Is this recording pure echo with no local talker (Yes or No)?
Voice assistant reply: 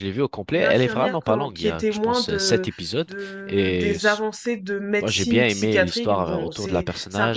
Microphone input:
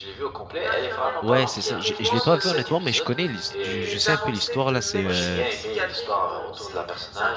No